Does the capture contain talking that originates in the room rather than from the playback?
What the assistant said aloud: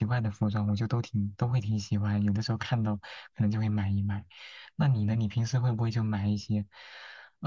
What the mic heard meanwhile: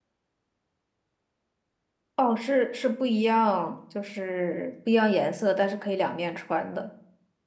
Yes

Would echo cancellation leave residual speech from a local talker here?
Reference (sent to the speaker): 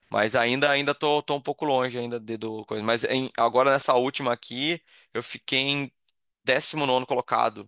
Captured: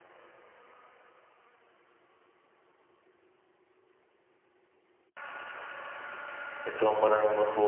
Yes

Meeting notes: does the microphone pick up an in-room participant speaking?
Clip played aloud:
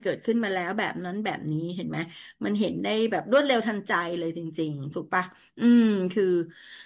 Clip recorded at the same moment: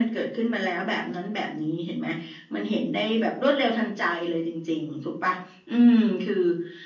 No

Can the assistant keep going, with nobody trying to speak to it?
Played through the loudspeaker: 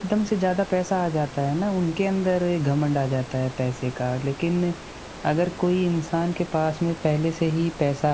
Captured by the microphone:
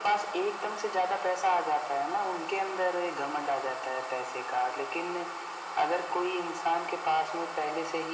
Yes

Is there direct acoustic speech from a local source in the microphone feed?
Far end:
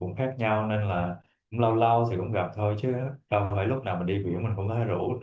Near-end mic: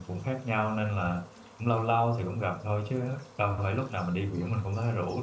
No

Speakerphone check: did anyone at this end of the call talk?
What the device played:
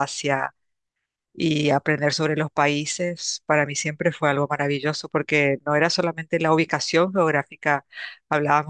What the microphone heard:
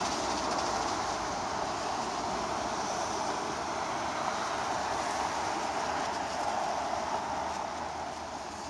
No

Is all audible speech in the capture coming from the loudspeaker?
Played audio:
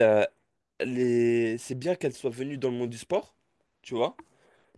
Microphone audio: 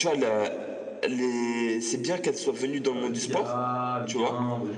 No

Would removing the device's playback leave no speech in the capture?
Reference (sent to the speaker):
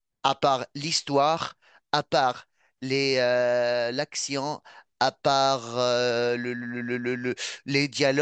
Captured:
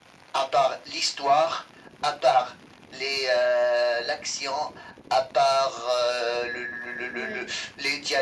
No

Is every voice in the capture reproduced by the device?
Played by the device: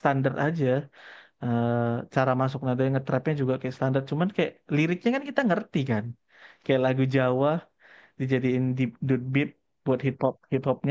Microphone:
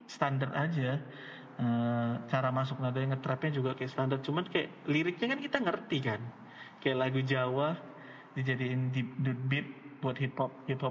Yes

